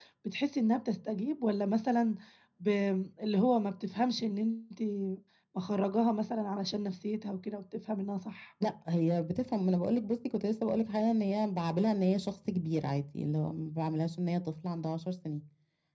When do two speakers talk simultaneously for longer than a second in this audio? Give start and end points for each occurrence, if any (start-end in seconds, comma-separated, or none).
none